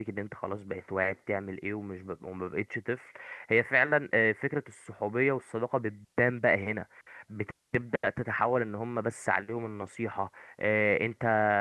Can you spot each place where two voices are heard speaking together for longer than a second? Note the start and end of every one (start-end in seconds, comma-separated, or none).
none